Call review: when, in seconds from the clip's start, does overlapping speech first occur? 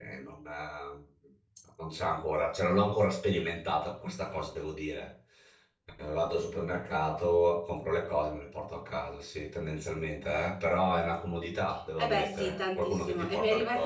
12.0 s

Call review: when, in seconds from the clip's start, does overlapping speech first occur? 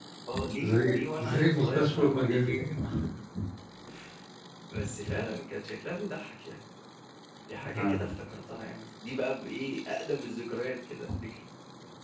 0.6 s

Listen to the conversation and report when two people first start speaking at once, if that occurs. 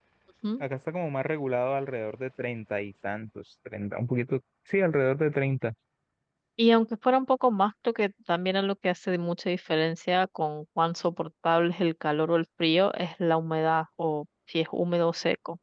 none

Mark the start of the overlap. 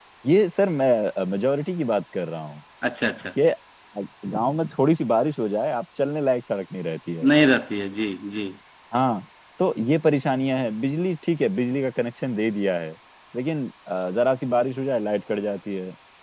none

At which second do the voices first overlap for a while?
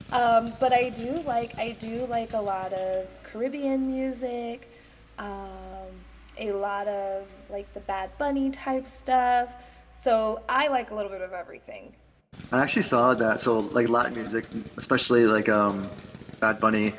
none

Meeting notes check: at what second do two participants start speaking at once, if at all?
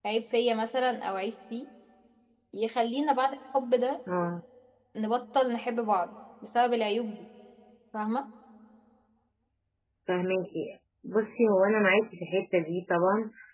none

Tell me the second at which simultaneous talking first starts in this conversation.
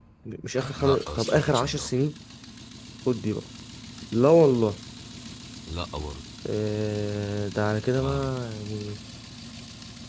0.8 s

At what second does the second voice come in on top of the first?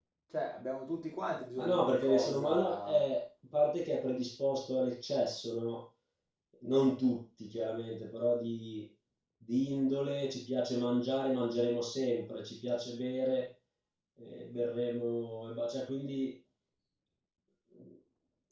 1.6 s

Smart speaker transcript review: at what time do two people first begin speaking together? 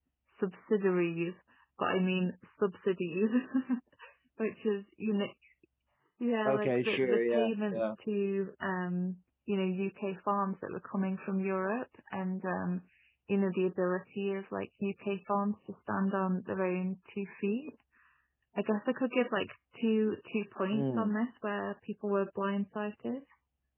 6.5 s

